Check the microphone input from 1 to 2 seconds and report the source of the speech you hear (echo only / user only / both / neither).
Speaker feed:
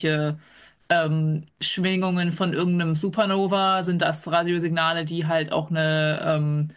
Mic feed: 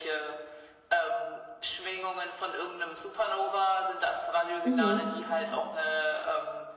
echo only